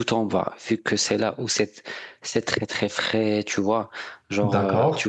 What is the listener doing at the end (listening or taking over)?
listening